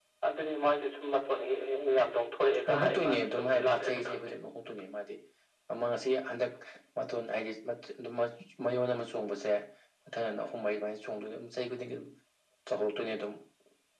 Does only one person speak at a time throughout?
No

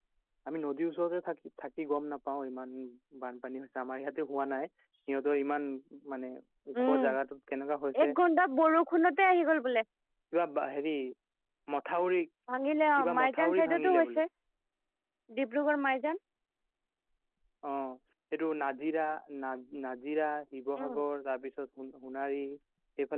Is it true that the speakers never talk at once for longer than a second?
No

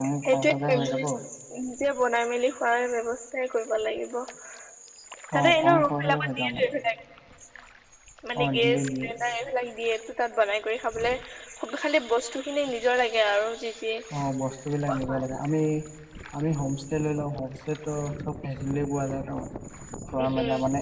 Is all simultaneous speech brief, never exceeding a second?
No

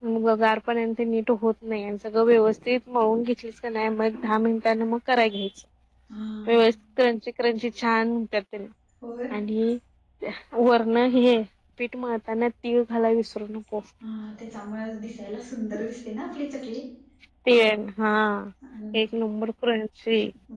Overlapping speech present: No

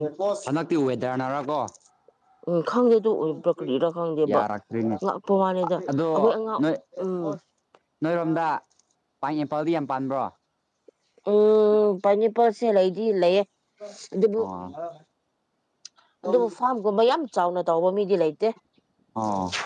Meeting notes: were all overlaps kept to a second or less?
Yes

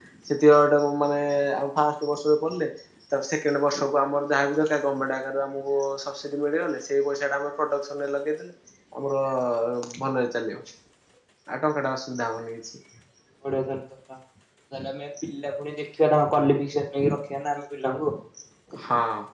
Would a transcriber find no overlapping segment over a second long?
Yes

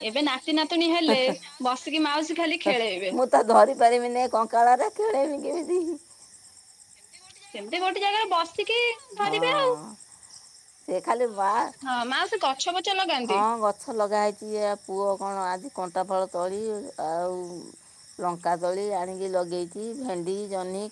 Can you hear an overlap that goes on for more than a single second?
No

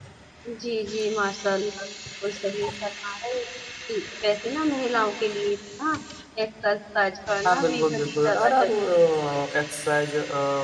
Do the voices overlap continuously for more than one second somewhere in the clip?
Yes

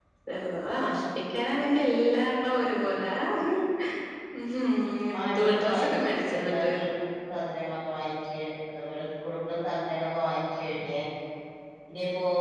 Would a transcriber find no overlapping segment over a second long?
No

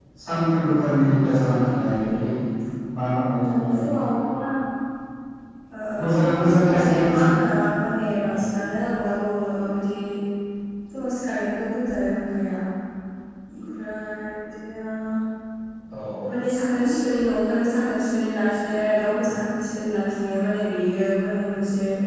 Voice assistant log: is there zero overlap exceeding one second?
No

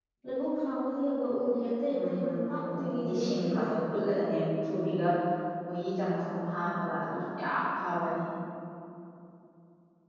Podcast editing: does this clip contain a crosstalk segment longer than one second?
Yes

